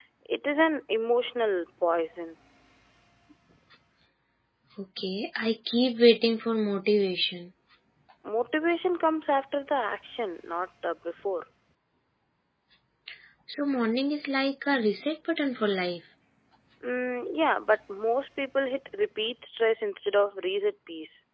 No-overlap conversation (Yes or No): Yes